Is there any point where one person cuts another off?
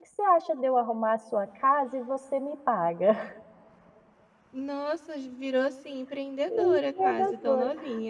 Yes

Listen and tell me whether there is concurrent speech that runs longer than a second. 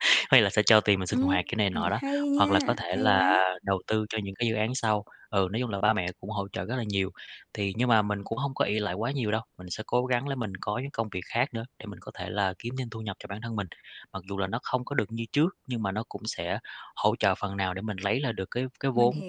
Yes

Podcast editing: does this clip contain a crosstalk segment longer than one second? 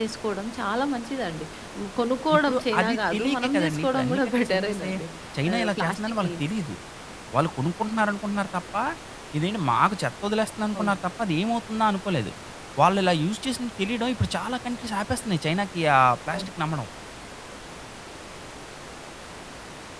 Yes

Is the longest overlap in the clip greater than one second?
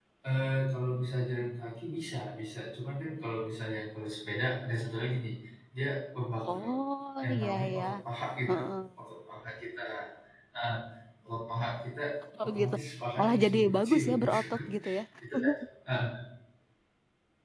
Yes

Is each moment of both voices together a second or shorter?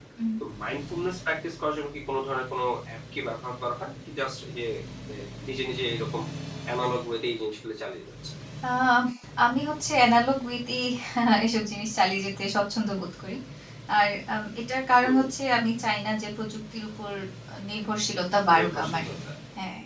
Yes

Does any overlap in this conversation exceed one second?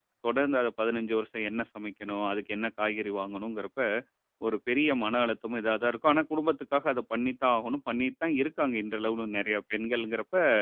No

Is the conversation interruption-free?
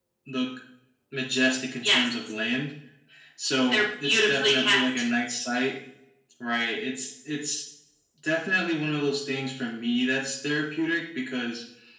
No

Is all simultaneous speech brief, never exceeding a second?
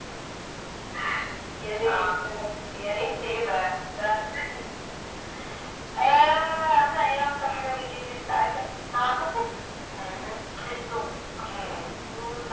Yes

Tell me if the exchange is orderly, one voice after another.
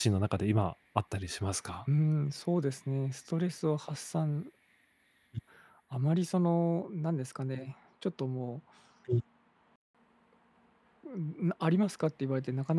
Yes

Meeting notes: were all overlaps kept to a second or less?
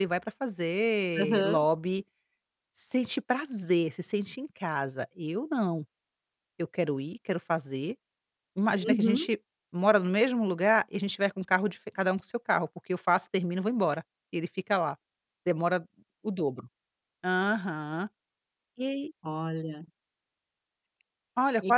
Yes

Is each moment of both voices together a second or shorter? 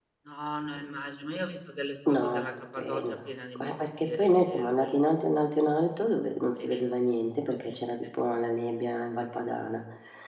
No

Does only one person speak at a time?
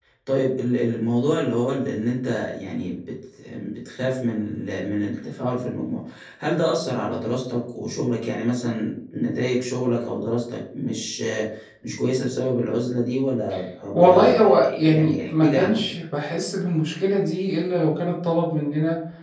No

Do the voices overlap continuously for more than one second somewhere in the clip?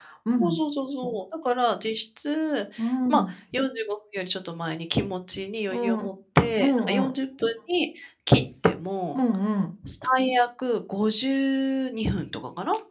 No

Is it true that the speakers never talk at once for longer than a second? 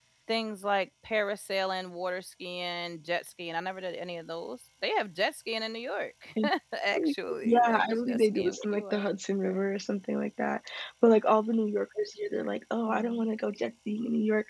No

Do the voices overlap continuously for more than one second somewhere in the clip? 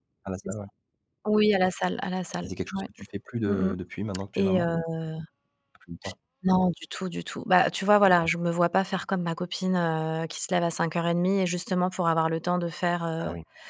No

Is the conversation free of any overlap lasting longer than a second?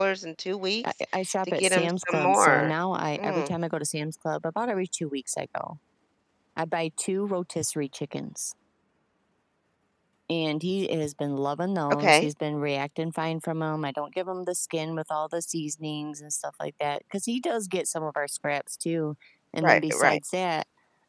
No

